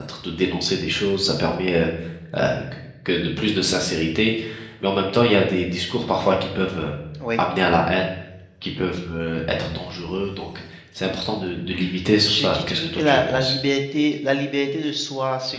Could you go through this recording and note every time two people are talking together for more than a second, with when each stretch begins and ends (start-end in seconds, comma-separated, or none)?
12.2-13.5